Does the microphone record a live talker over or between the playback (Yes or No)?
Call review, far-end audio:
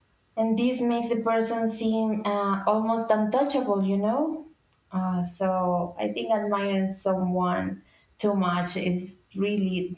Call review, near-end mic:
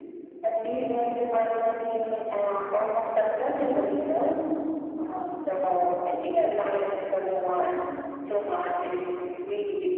No